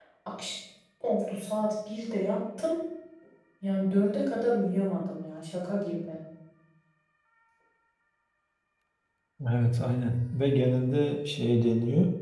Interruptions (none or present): none